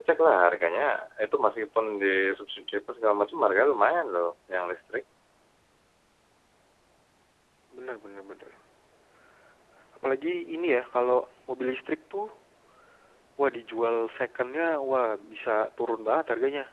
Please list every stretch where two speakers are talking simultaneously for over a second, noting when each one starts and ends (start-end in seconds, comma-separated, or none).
none